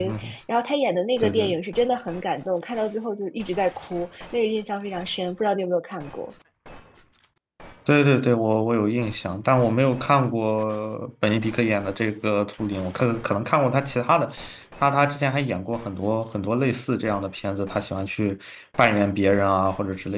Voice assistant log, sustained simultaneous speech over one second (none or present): none